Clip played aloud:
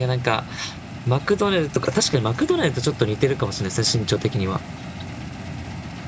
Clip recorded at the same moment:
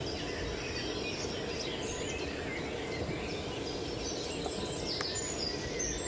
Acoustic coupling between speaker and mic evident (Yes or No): No